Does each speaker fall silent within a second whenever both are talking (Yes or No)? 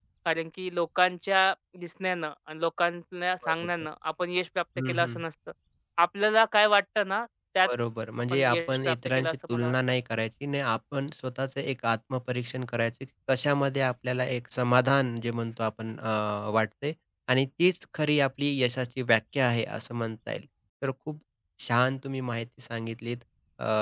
No